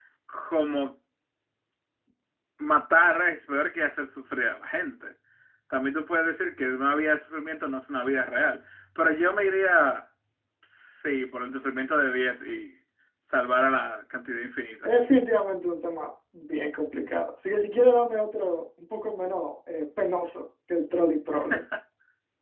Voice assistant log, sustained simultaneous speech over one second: none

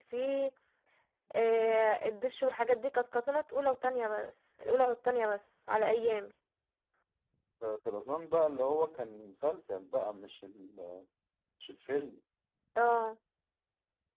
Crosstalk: none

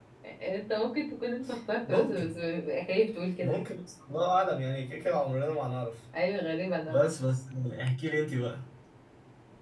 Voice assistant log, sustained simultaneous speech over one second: none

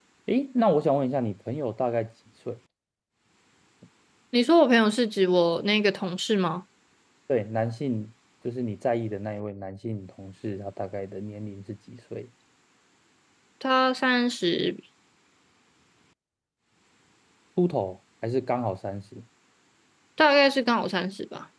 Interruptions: none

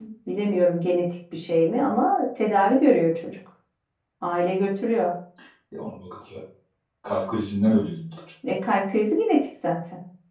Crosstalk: none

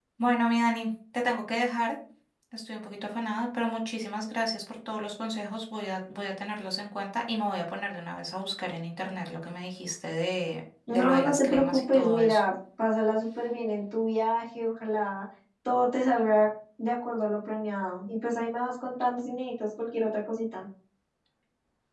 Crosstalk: present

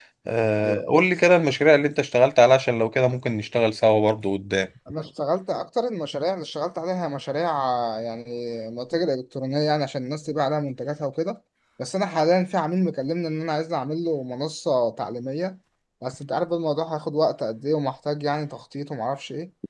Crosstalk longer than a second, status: none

